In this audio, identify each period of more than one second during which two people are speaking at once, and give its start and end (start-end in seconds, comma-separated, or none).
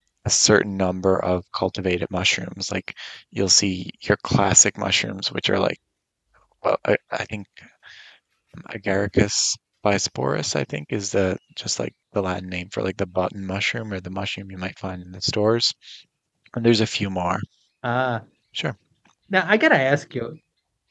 none